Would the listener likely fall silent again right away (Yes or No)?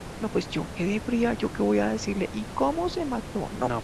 No